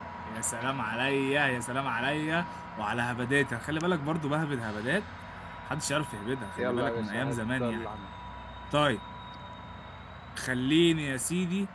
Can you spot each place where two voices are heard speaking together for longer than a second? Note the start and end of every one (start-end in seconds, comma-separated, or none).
6.6-7.9